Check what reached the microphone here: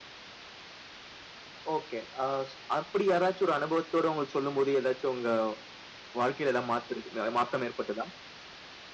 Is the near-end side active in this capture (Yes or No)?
Yes